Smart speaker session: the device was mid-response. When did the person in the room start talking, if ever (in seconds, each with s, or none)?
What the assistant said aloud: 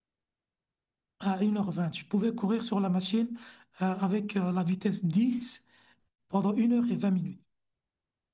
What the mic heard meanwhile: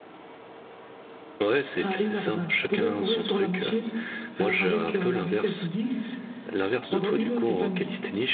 1.4 s